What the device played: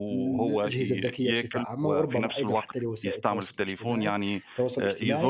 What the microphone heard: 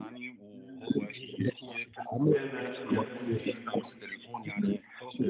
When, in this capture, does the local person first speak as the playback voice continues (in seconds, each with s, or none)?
2.3 s